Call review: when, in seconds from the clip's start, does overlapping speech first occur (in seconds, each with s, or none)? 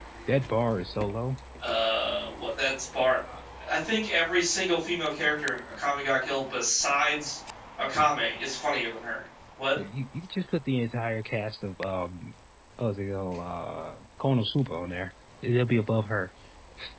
none